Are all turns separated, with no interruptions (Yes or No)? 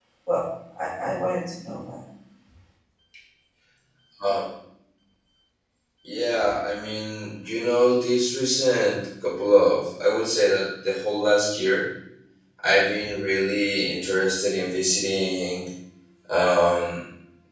Yes